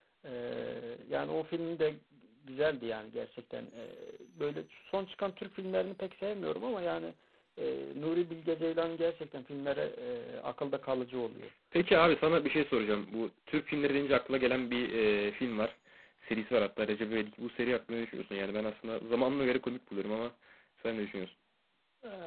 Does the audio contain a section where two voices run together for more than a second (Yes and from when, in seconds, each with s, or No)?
No